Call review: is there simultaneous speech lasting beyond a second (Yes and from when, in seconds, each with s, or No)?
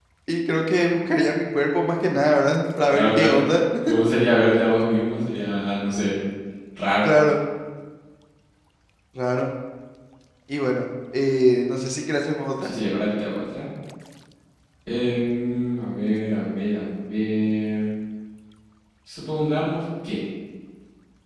No